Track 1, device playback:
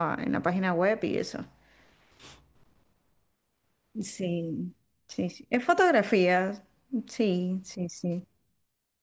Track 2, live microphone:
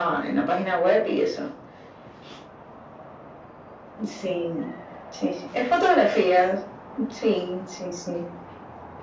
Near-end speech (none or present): none